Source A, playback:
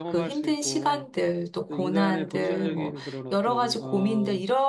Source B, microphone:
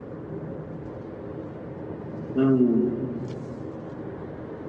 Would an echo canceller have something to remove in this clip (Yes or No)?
No